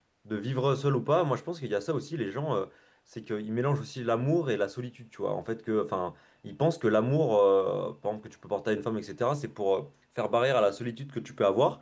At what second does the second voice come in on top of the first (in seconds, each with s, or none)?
none